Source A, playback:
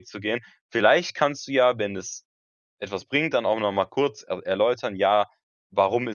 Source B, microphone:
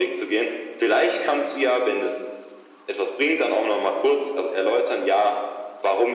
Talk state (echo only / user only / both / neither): echo only